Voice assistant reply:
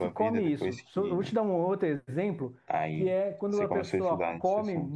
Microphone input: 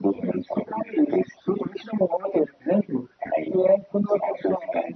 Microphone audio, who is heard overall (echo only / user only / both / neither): echo only